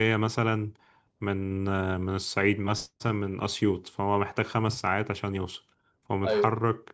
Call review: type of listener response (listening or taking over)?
listening